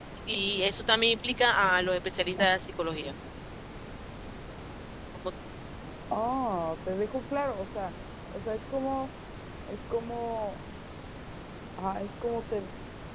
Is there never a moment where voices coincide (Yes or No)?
Yes